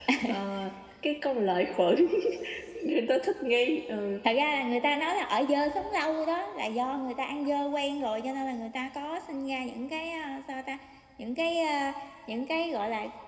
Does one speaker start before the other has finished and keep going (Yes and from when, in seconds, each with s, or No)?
No